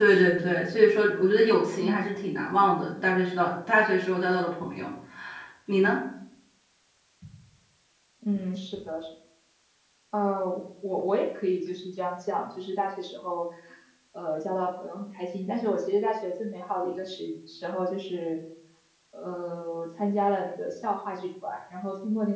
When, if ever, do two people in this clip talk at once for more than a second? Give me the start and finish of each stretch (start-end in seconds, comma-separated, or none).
none